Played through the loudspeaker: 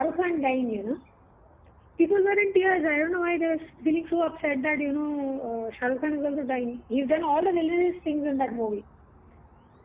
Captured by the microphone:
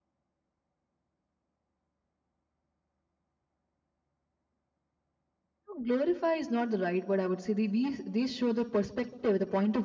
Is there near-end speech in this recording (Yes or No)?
Yes